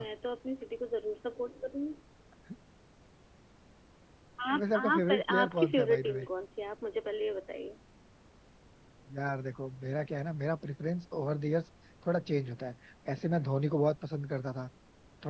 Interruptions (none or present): present